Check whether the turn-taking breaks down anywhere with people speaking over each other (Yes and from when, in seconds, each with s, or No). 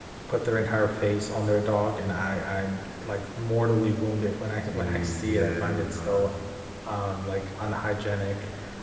Yes, from 4.7 s